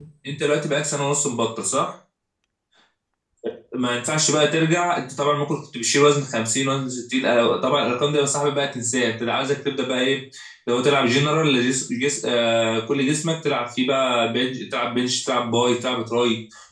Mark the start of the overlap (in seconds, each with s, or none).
none